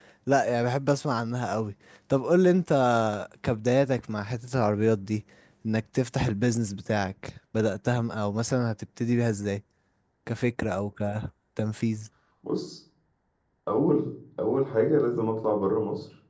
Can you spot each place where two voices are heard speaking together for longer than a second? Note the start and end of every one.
none

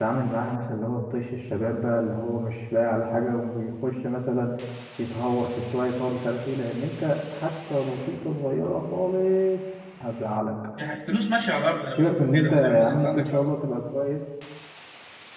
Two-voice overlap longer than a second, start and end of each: 11.9-13.3

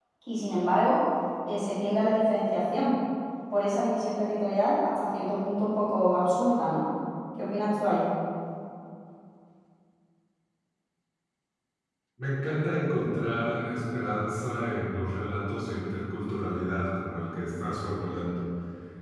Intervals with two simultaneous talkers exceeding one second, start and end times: none

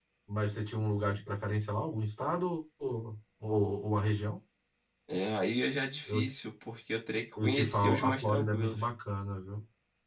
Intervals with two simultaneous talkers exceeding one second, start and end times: 7.4-8.8

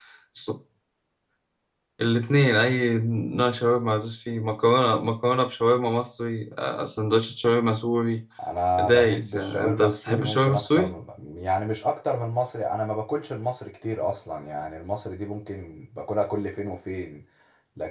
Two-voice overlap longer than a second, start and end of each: 8.8-10.9

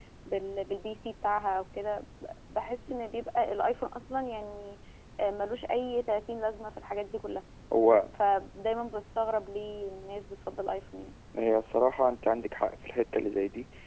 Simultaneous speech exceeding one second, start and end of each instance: none

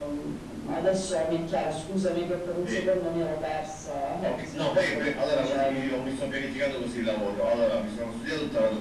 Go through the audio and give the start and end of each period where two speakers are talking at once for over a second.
4.2-5.8

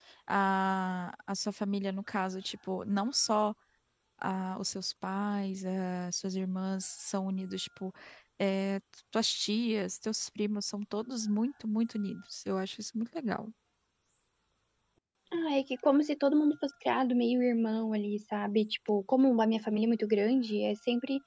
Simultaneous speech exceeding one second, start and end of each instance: none

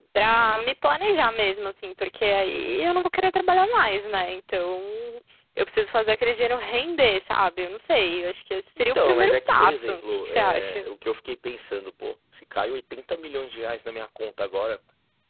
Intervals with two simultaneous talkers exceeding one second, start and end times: 8.9-10.9

